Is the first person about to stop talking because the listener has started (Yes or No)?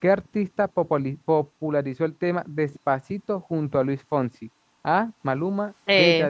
No